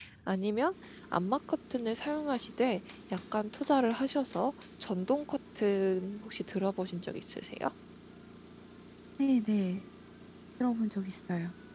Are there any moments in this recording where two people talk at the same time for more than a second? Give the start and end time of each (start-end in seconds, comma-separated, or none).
none